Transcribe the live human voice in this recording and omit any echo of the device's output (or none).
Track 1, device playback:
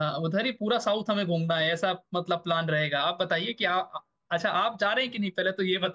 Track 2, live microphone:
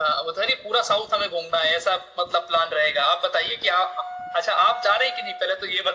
none